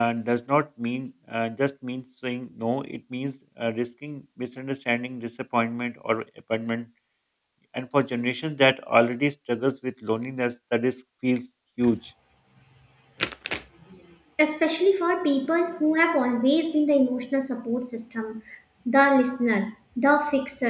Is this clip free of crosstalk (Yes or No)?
Yes